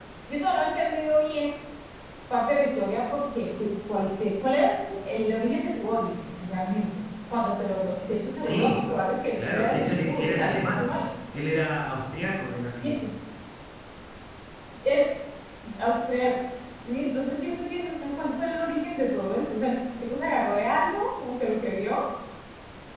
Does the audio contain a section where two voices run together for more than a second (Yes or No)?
Yes